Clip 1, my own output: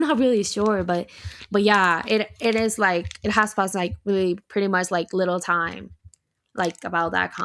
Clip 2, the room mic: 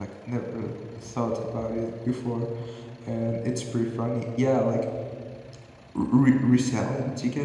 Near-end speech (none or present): present